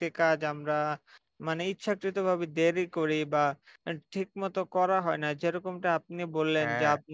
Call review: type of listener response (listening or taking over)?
listening